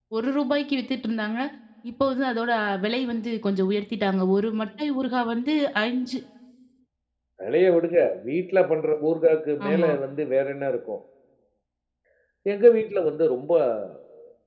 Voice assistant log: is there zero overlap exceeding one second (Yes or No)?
Yes